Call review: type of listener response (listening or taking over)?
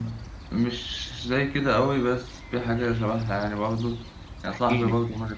listening